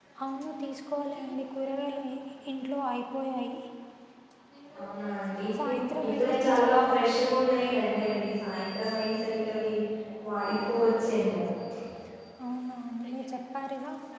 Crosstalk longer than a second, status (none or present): present